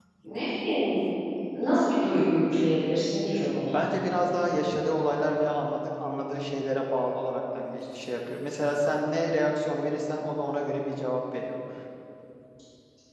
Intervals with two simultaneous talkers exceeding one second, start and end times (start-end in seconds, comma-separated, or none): none